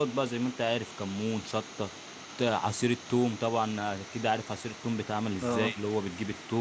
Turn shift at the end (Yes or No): No